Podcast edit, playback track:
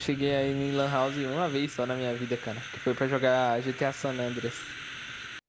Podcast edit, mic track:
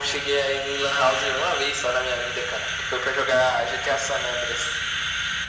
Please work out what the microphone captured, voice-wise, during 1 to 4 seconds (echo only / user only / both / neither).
echo only